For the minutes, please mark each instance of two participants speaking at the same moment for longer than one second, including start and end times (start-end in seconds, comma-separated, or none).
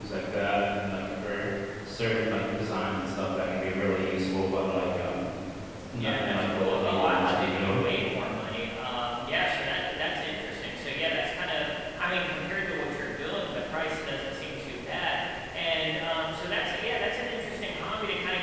6.0-7.8